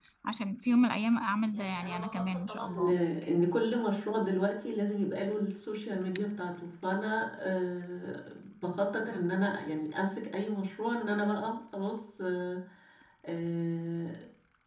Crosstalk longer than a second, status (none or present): present